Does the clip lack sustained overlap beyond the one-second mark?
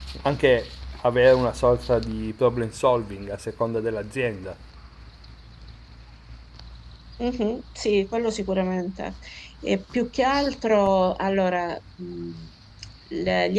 Yes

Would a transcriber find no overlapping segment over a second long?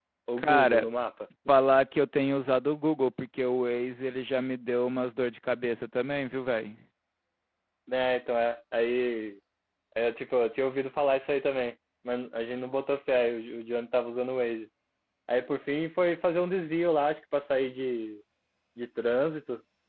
Yes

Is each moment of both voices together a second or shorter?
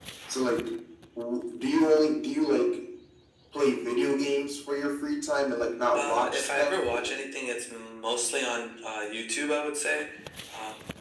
No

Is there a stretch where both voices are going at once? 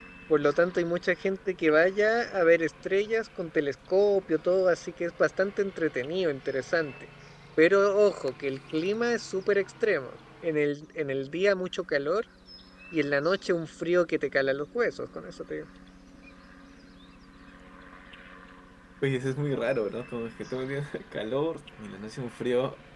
No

